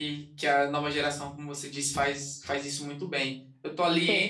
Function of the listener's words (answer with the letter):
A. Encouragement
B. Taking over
A